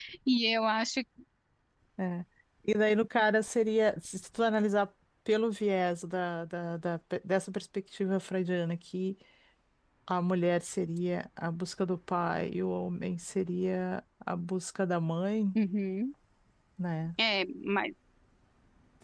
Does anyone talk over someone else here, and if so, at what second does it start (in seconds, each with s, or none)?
none